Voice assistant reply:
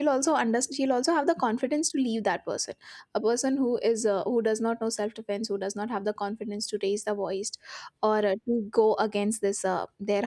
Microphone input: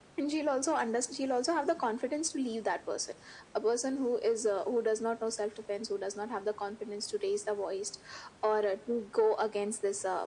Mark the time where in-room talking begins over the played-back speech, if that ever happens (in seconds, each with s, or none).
none